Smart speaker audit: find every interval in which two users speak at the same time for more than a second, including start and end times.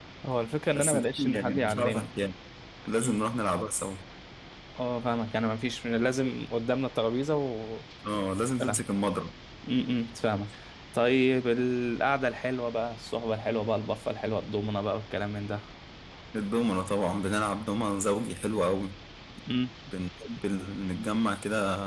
0.8-2.1

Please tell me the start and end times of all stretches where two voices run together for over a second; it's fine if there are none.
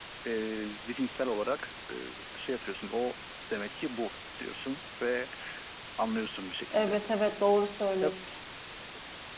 none

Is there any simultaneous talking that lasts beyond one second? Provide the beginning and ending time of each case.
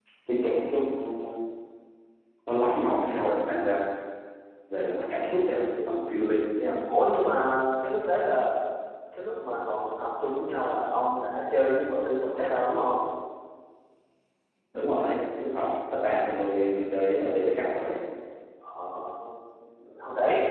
none

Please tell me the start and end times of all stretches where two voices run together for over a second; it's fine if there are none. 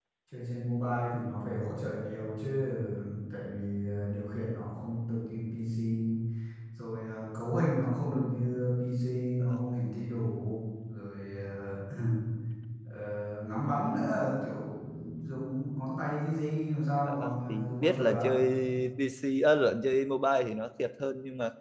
17.0-18.2

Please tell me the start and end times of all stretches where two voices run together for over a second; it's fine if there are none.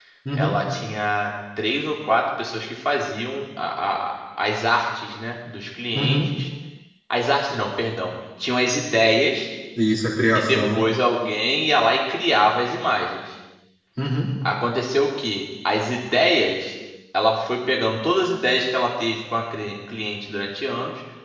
none

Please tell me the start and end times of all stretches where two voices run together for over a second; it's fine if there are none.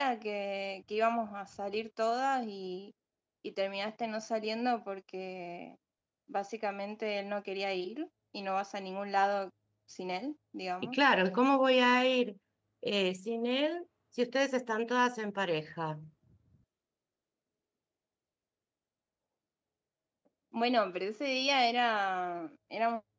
none

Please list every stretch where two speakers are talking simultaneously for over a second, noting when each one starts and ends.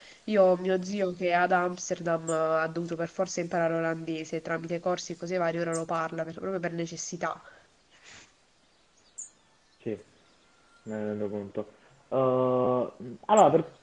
none

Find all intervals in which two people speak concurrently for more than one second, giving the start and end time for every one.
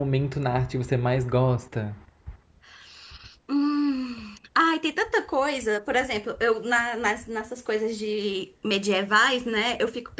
none

